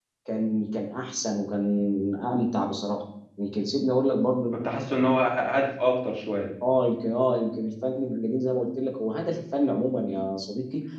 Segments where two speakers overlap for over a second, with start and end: none

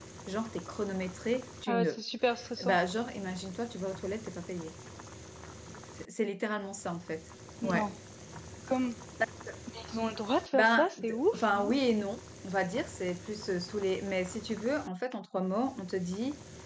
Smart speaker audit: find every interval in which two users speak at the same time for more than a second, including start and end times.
10.5-11.7

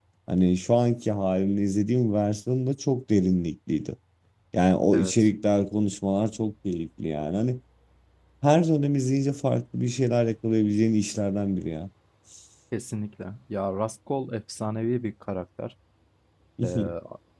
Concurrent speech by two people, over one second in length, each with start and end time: none

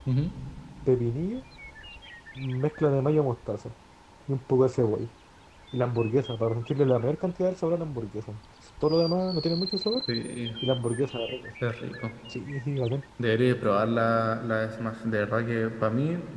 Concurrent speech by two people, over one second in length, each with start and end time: none

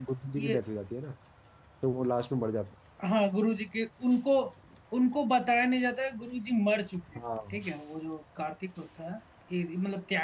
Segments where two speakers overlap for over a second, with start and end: none

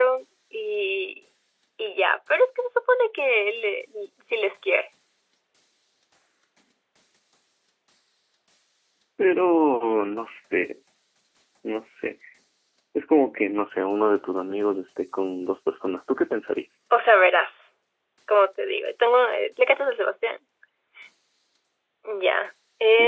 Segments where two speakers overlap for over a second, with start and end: none

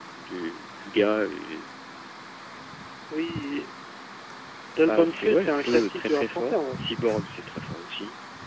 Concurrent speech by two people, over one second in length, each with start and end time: 4.9-6.6

